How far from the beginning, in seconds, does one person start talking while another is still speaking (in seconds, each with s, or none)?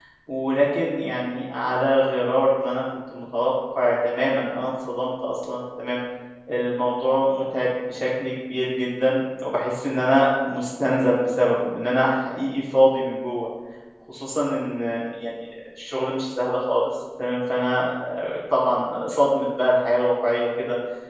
none